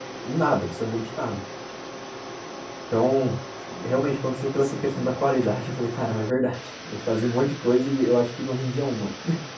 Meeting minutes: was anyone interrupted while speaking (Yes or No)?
Yes